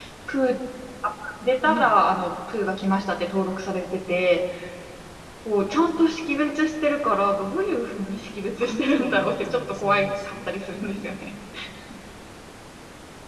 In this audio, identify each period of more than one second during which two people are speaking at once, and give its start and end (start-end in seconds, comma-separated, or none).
8.6-11.0